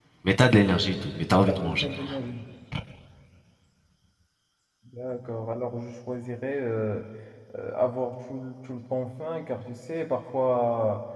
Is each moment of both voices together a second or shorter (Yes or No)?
Yes